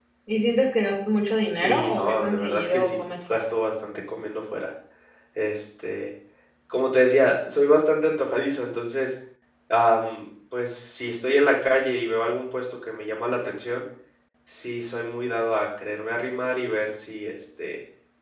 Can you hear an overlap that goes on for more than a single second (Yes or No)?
Yes